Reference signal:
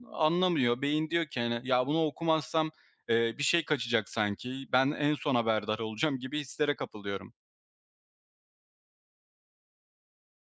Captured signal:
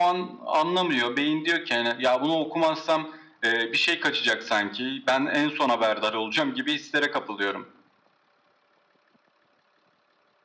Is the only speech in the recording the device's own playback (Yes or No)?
Yes